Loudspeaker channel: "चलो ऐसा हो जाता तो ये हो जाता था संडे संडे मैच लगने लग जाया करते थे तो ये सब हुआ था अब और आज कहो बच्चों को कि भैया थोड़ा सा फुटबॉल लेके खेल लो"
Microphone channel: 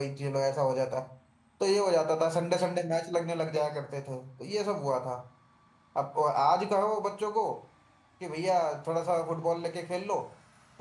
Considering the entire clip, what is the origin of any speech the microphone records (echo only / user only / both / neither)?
echo only